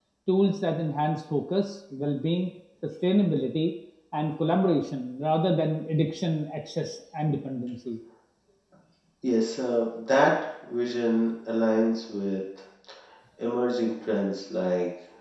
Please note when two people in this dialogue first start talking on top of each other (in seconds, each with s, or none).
none